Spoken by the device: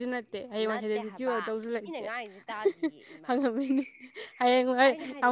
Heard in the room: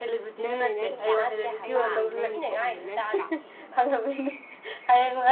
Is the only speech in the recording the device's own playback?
No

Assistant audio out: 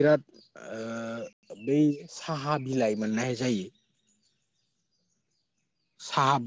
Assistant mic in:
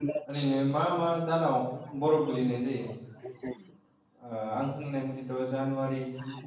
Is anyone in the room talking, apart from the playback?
Yes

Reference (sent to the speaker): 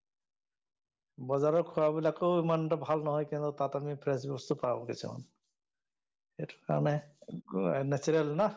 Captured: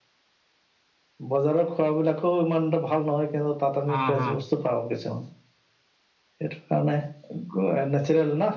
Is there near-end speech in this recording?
Yes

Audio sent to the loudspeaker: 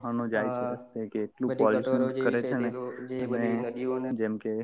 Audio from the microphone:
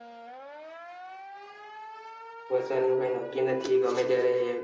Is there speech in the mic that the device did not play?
Yes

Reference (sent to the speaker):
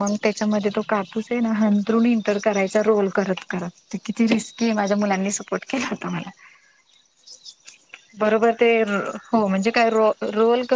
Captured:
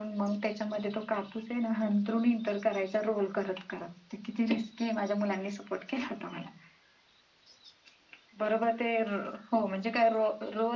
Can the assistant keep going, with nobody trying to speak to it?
Yes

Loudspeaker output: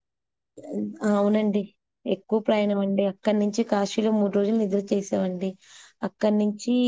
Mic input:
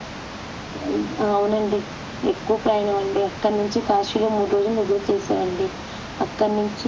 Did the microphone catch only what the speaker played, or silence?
Yes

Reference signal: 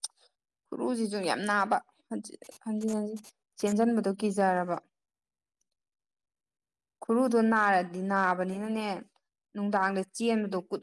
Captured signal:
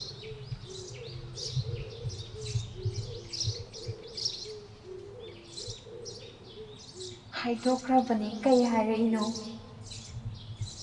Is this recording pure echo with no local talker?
No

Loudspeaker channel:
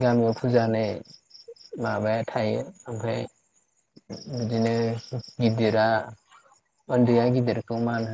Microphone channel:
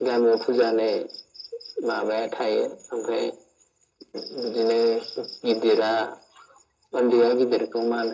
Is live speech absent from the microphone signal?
Yes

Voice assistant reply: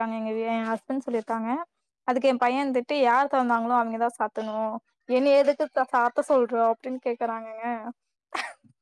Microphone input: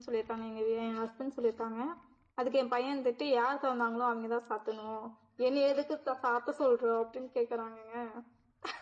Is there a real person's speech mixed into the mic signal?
No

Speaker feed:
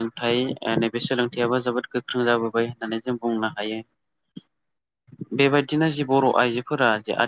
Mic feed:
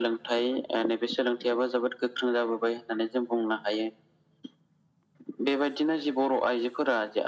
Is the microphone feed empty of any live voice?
Yes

